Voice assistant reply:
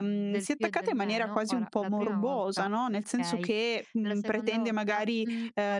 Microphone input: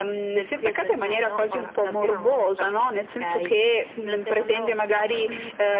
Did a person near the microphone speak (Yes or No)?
No